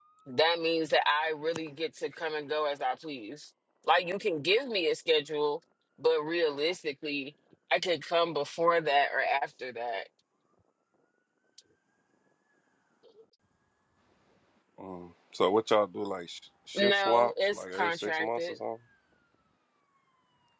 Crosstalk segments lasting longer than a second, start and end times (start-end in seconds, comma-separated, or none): 16.8-18.5